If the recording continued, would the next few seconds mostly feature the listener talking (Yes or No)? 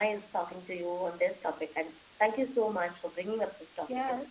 Yes